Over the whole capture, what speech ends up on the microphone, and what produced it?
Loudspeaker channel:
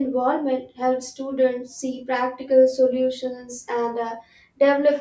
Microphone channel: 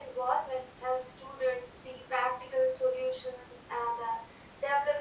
echo only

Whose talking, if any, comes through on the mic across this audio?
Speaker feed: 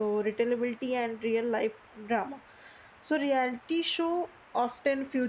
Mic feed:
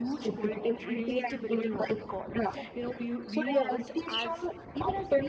both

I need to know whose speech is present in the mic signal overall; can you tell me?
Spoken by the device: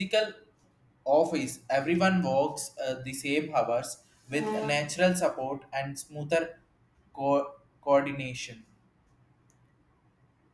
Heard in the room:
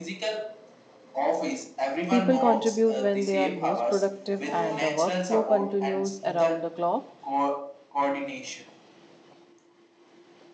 both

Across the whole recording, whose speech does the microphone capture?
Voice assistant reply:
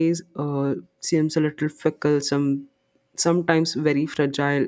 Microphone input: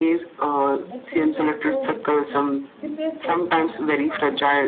both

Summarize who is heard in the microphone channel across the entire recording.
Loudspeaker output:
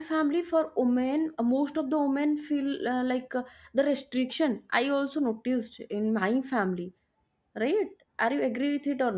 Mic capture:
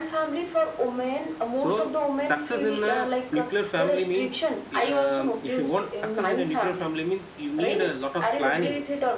both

